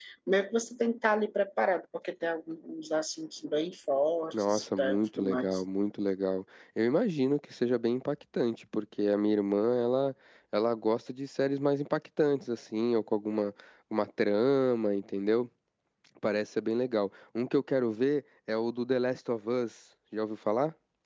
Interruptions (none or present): present